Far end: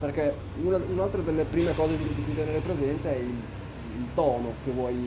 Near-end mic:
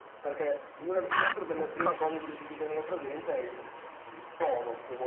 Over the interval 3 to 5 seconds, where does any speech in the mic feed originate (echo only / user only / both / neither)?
echo only